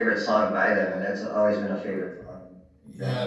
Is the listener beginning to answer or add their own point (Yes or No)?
Yes